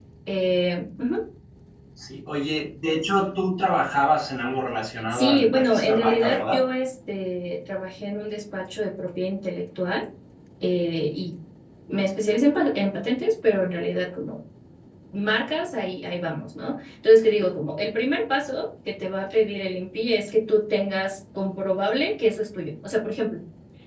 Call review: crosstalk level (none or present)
present